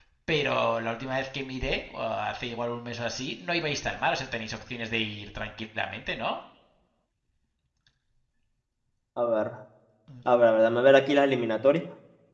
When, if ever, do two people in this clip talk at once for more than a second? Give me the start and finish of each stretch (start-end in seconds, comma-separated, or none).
none